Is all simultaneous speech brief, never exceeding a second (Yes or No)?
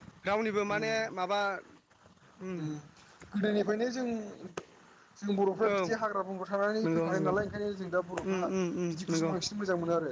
Yes